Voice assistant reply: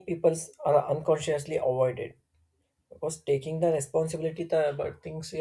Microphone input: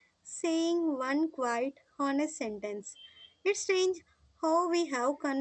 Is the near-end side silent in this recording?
No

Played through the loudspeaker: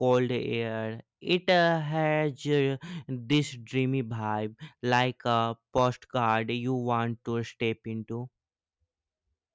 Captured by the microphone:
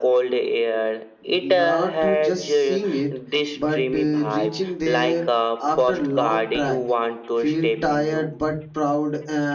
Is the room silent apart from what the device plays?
No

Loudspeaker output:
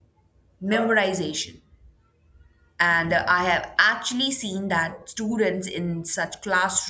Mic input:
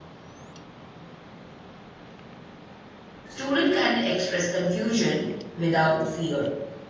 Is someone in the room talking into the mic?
Yes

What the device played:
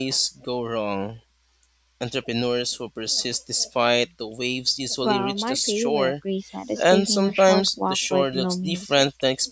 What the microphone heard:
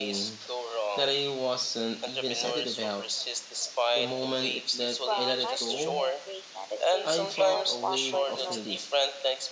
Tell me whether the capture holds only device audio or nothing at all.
No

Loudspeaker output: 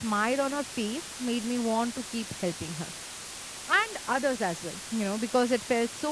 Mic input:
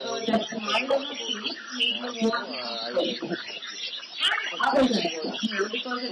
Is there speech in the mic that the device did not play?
Yes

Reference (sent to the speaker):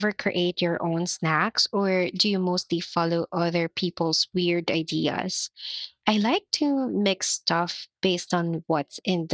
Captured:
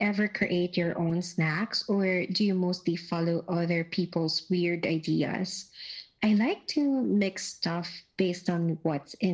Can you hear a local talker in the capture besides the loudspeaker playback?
No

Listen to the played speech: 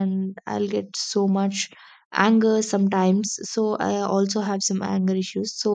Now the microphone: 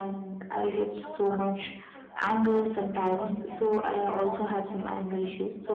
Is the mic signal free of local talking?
No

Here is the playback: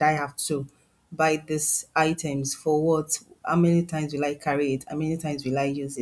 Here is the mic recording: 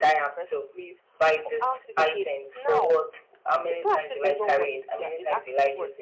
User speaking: Yes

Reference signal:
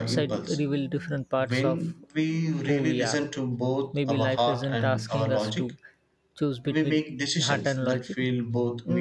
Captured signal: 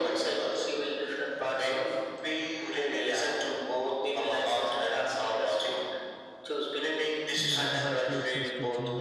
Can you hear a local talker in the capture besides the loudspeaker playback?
Yes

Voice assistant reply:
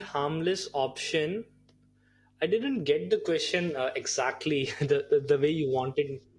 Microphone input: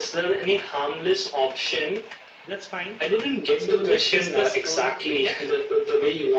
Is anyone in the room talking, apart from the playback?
Yes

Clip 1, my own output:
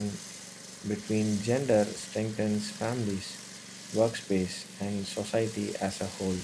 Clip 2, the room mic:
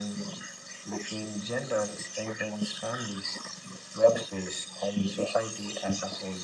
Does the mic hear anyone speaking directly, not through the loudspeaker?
No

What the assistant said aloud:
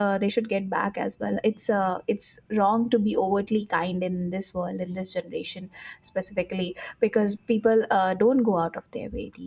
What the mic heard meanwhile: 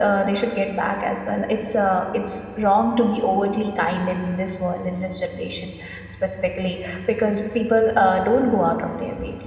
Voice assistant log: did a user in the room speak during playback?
No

